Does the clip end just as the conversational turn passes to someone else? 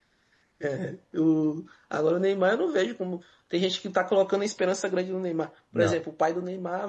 No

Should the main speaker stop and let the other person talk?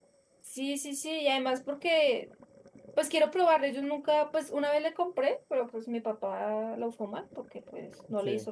No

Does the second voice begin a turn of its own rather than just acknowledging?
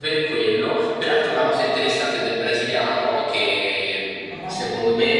No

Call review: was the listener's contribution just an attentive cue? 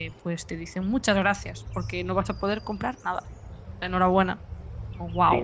No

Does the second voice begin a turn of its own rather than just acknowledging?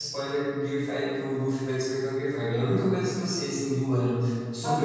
Yes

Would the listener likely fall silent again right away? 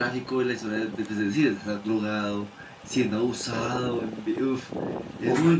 No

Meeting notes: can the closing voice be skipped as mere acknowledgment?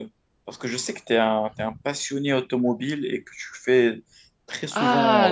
No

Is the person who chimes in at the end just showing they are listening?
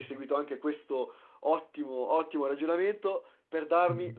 Yes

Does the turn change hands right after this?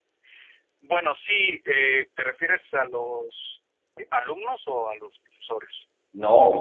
Yes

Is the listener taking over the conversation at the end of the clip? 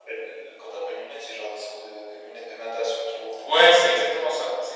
Yes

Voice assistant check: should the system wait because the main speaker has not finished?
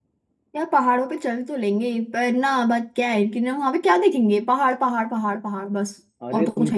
No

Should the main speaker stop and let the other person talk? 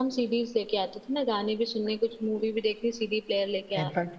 Yes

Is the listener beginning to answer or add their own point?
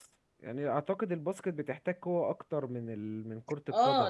Yes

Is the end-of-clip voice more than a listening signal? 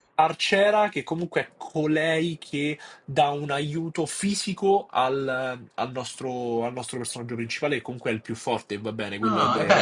Yes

